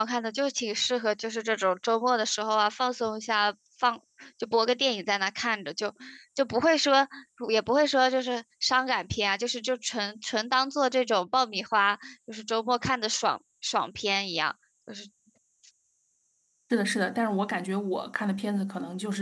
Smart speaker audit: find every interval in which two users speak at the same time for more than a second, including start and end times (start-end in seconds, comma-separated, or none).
none